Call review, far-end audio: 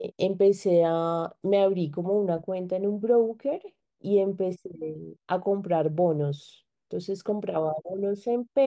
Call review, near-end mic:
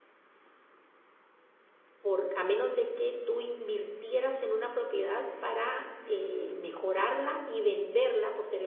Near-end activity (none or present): present